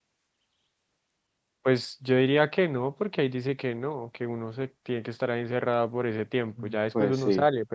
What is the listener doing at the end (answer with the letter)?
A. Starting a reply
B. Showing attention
B